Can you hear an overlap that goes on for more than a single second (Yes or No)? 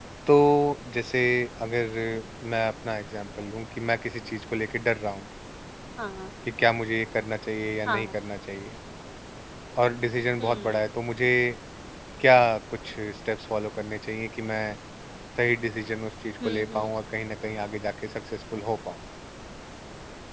No